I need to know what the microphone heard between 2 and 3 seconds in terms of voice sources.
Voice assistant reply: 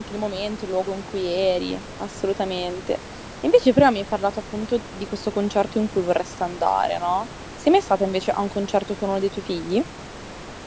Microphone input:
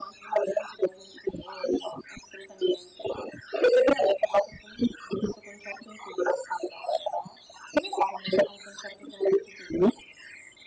echo only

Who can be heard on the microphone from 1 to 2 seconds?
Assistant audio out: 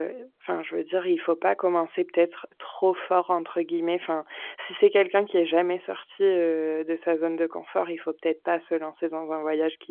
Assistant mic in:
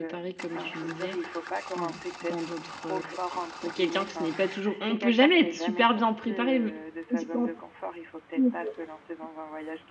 both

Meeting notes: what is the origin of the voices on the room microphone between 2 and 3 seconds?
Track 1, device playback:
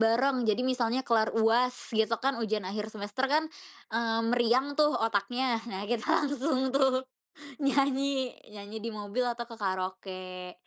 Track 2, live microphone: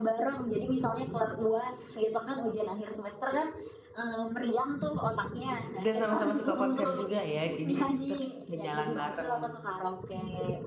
echo only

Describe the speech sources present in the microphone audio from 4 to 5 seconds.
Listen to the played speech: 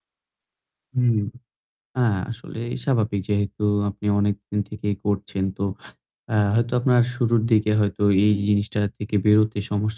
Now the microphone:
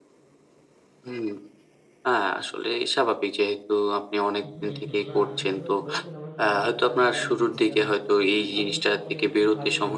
both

